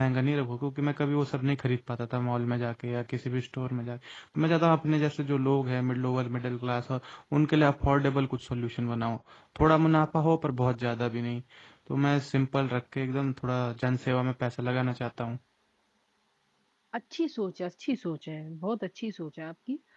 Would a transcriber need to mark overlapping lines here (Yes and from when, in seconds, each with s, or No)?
No